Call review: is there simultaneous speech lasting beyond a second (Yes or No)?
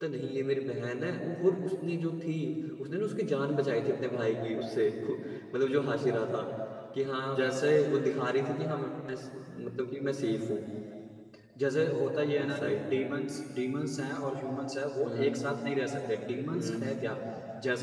No